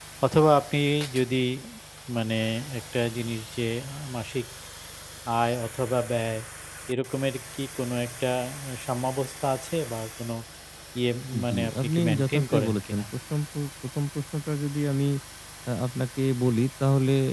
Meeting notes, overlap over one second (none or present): present